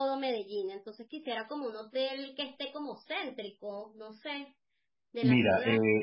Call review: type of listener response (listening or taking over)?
taking over